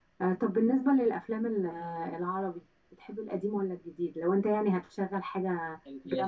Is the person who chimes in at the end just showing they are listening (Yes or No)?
No